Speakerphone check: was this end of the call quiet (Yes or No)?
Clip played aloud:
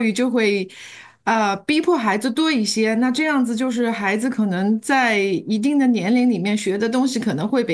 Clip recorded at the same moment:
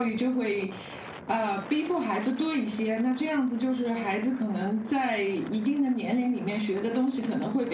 Yes